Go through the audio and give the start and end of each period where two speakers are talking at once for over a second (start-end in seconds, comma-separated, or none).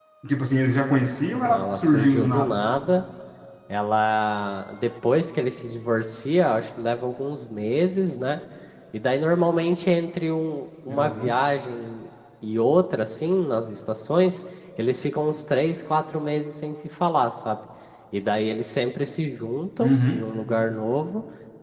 1.3-2.6